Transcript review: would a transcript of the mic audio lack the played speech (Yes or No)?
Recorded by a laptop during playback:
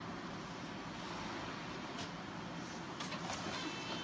Yes